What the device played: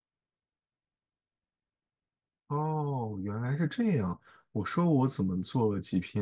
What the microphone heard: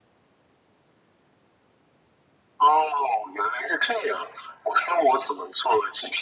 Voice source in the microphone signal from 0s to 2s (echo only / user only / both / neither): neither